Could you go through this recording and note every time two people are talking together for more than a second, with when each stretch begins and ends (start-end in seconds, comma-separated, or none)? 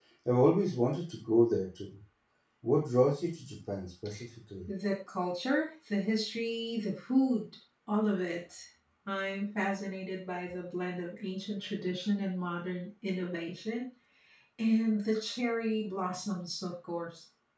none